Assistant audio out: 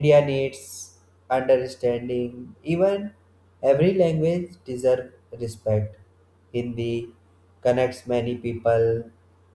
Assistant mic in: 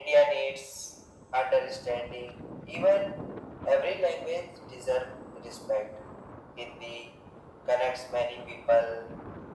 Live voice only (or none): none